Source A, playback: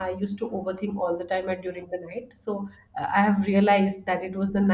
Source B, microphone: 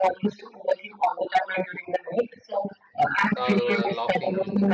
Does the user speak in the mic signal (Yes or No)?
Yes